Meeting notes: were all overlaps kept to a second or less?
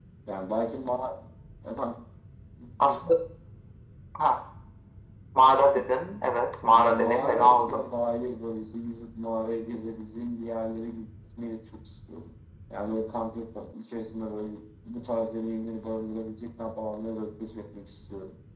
No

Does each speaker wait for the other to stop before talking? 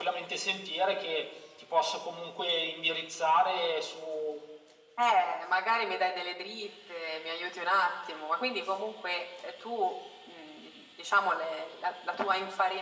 Yes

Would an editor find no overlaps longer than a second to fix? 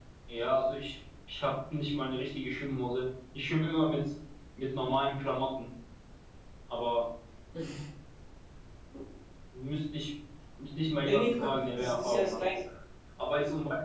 No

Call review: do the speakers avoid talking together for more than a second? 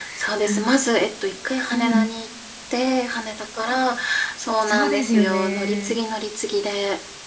No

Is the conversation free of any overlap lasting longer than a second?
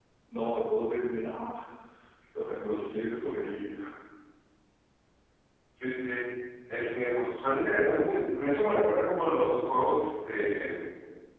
Yes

